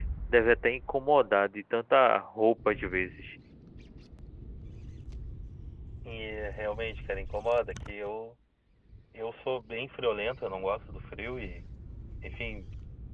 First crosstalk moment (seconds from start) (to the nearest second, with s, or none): none